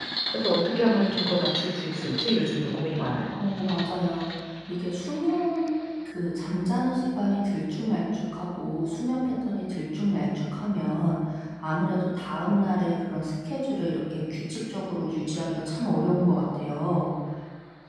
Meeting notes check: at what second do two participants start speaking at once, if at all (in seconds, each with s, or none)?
none